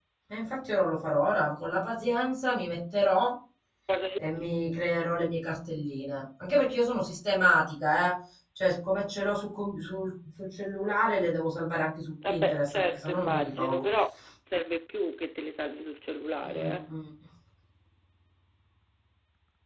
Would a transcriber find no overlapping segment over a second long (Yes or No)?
No